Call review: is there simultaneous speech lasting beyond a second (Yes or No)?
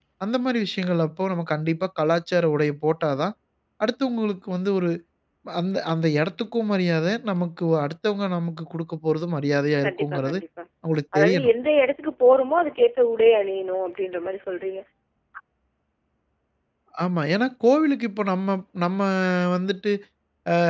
No